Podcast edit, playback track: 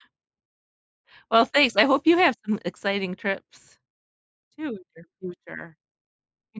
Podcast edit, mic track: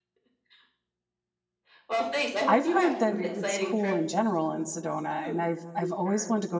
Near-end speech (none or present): present